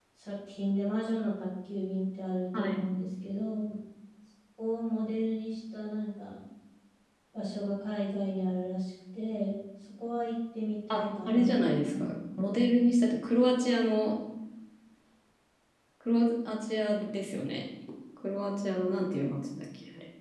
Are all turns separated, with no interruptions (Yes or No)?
No